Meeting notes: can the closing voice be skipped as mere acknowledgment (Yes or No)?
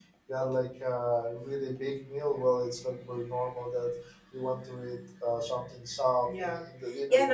No